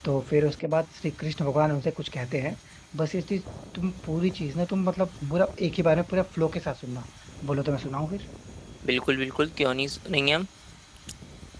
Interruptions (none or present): none